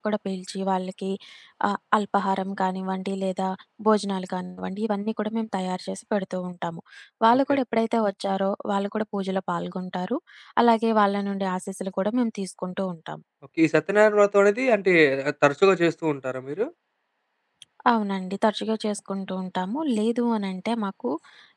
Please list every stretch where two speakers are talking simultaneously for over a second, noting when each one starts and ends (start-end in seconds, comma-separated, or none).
none